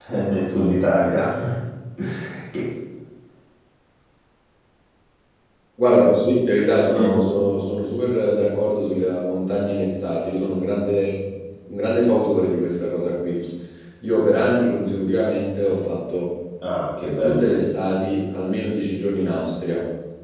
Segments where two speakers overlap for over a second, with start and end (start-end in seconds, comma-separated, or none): none